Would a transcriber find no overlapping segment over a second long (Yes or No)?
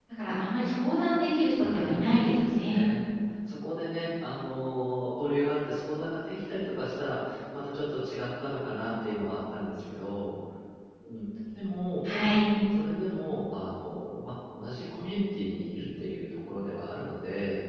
No